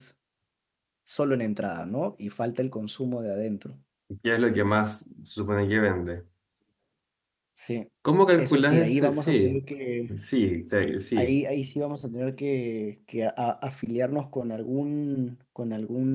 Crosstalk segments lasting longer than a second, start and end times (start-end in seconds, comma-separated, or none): 8.3-9.6